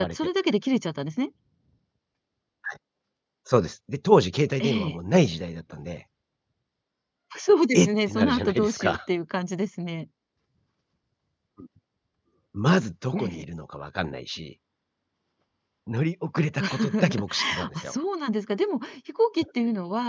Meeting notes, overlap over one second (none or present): present